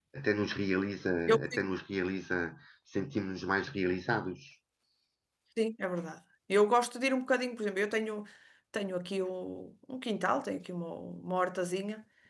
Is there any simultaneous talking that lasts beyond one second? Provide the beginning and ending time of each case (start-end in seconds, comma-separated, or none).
none